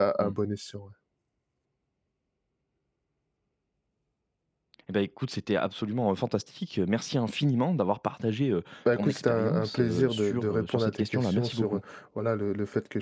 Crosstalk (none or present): present